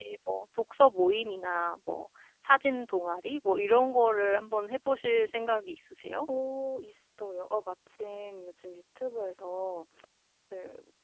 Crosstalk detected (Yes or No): No